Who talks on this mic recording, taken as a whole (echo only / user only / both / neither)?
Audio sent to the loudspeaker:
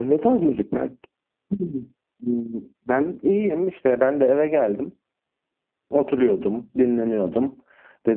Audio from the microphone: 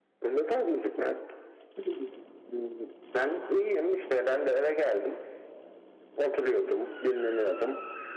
echo only